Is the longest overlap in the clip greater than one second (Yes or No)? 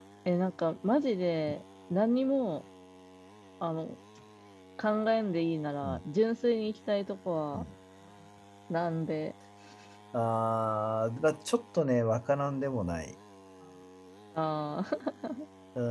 No